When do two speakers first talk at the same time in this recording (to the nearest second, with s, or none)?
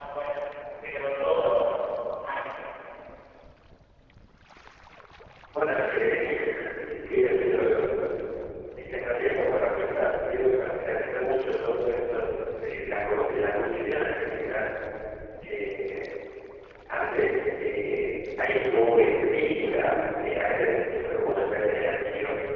none